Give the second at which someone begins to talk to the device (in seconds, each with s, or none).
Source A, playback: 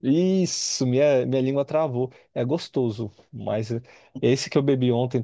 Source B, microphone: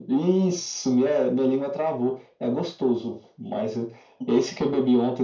none